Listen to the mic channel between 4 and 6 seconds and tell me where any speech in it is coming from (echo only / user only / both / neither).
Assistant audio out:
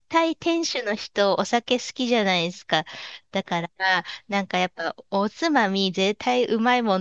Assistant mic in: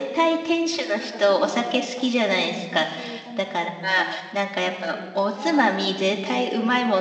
both